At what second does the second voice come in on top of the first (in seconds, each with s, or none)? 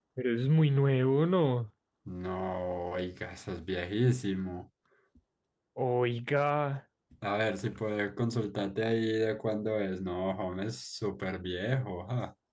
none